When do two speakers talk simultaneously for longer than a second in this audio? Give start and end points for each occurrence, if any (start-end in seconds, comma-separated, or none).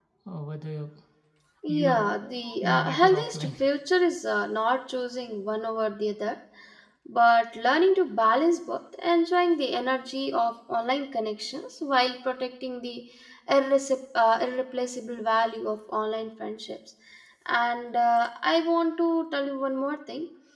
1.7-3.5